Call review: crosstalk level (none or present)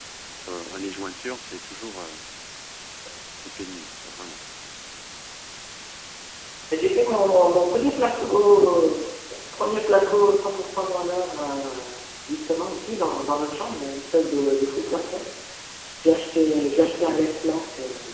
none